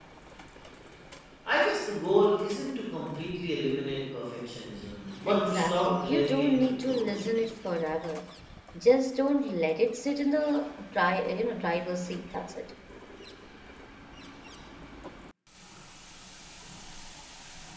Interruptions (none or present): present